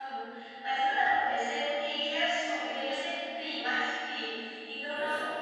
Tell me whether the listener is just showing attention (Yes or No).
Yes